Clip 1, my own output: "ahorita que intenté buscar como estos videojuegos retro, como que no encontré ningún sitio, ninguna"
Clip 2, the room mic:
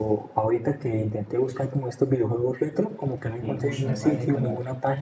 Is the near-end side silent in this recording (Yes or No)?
No